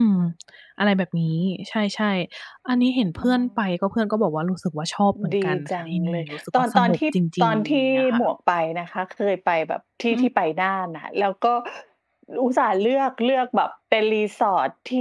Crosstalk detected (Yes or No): Yes